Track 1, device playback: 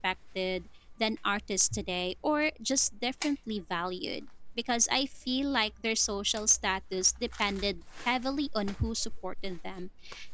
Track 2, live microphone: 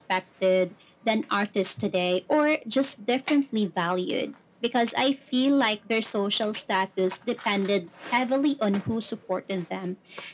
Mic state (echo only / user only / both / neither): echo only